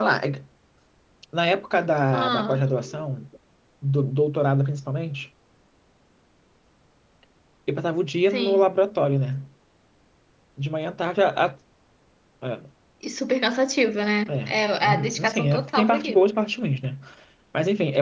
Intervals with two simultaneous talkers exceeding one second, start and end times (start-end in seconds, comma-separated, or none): 14.8-16.3